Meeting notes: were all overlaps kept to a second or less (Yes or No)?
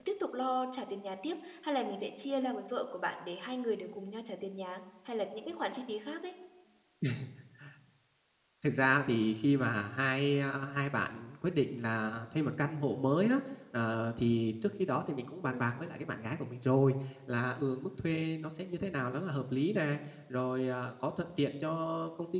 Yes